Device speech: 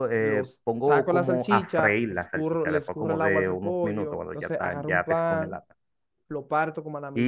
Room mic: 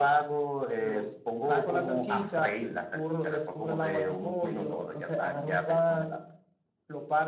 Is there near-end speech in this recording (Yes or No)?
No